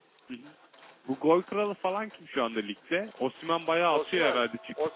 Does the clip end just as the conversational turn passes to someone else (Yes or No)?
Yes